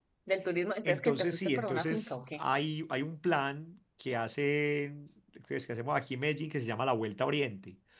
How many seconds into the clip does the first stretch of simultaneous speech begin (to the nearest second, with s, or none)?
1 s